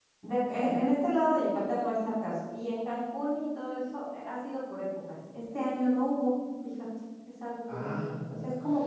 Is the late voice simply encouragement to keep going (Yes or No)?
Yes